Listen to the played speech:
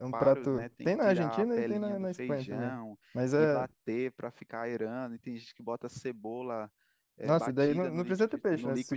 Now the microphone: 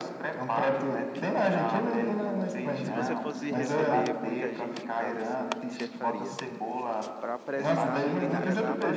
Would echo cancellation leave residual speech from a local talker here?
Yes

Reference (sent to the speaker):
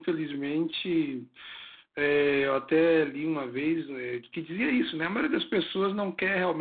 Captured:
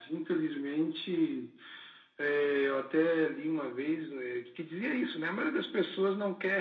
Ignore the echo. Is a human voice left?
No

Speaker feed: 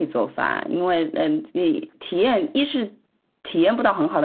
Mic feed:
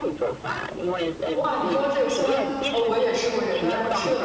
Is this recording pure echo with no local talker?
No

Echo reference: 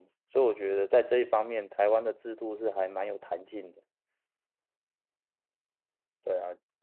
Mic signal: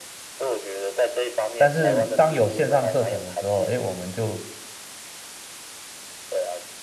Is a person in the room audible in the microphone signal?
Yes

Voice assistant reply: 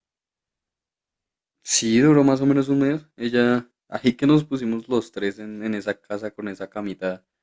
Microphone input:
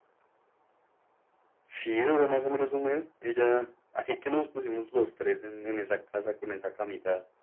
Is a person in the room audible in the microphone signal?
No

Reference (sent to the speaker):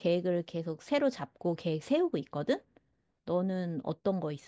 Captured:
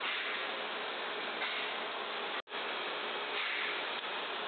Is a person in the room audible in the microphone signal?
No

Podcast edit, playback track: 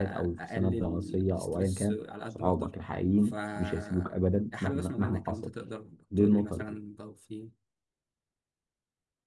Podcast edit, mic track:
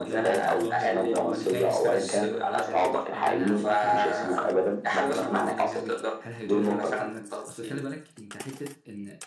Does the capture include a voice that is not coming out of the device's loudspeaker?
Yes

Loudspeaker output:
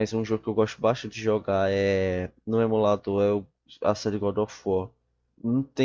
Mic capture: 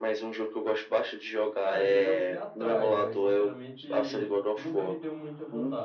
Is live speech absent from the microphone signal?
No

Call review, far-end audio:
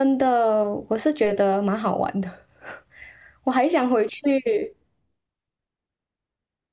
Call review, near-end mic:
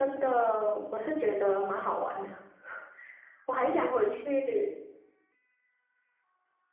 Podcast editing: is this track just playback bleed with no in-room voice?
Yes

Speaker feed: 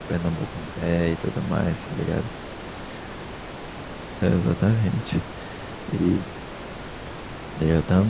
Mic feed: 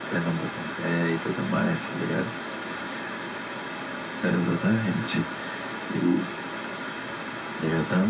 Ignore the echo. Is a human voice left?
No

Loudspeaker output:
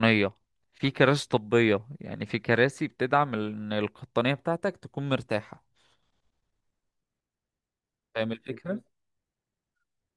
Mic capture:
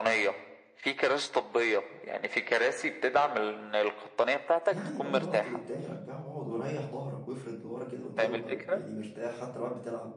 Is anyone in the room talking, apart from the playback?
Yes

